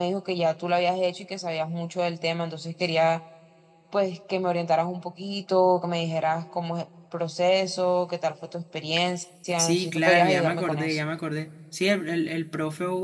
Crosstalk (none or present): present